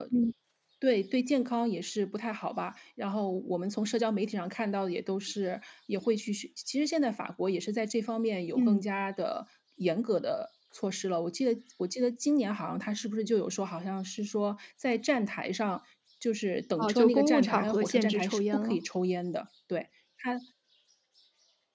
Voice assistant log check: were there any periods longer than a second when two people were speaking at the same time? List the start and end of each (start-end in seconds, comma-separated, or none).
16.8-18.8